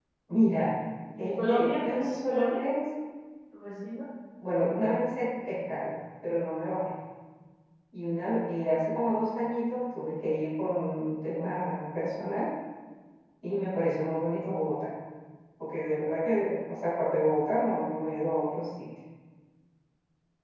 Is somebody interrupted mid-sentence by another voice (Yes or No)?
Yes